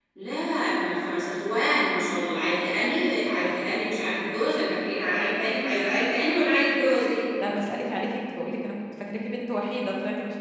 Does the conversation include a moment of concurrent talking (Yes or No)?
No